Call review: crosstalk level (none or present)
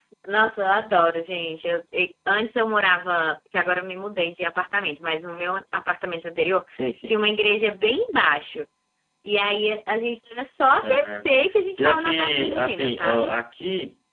present